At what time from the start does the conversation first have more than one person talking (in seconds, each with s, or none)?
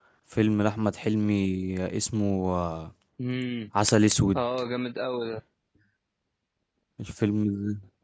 none